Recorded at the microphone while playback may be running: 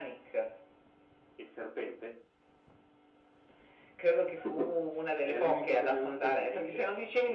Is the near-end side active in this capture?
No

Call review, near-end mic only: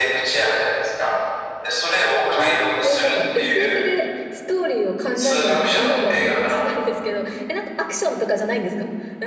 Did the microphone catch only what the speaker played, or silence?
No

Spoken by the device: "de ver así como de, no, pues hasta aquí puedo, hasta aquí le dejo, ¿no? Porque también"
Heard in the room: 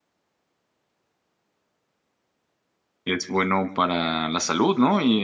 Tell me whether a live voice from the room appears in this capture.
Yes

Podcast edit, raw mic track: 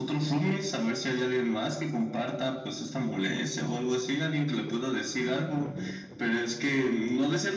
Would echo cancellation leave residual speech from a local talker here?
No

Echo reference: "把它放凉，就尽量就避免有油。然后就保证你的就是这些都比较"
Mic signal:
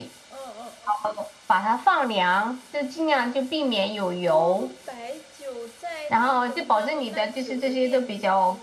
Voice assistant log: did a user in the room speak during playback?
Yes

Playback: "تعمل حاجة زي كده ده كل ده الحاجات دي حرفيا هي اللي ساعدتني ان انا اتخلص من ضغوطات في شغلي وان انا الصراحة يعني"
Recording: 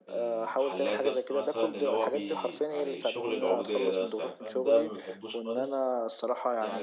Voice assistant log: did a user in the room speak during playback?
Yes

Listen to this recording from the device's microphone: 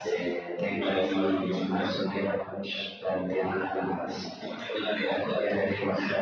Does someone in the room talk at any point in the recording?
No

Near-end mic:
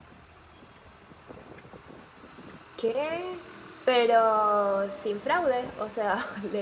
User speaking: Yes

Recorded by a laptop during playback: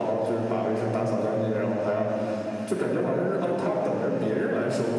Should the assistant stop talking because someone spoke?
No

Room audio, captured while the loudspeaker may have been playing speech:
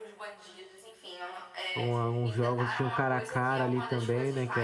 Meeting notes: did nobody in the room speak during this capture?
No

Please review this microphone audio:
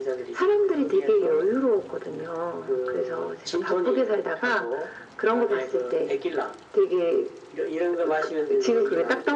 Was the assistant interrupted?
No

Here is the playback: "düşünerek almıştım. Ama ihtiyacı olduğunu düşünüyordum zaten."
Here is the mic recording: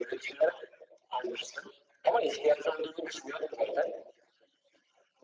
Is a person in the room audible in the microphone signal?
No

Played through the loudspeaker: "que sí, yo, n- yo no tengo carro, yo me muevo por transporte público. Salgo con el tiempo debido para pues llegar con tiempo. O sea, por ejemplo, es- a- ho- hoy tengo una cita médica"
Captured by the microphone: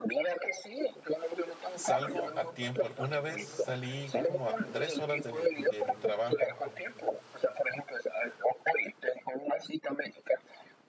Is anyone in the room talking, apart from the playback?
Yes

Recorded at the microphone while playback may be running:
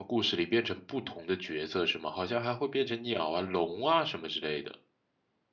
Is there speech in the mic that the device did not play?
Yes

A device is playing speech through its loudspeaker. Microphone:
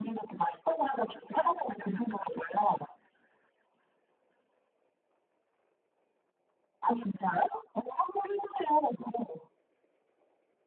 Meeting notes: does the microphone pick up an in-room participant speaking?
No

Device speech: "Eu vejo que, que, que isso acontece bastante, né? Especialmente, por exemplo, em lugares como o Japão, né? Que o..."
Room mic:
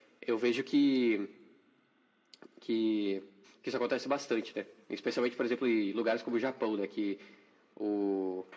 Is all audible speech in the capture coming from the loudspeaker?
Yes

